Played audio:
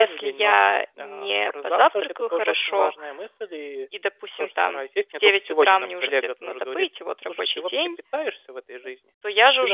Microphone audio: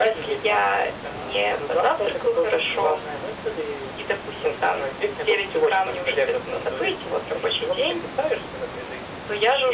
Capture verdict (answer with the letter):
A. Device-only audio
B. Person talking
A